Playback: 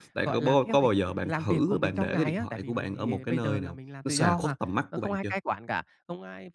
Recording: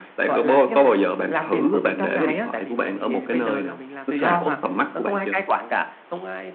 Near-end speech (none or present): none